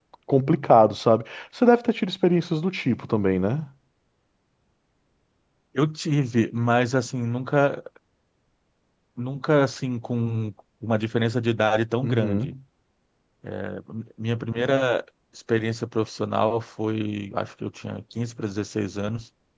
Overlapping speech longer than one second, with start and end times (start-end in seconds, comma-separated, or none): none